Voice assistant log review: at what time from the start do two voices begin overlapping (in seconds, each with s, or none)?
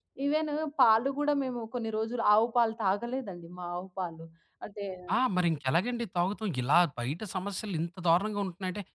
none